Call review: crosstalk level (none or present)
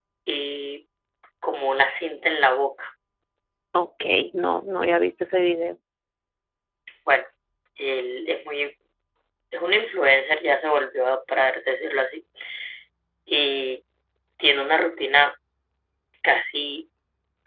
none